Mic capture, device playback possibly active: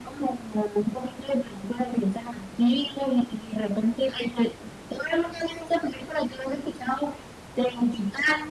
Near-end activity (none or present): none